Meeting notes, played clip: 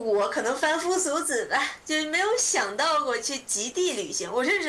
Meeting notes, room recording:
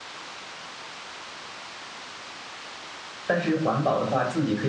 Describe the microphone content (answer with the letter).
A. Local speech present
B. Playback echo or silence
A